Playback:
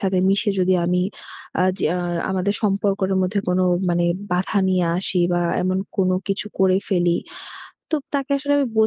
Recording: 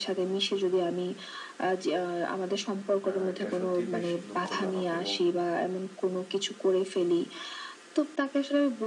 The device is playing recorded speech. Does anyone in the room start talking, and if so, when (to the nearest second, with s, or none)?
3 s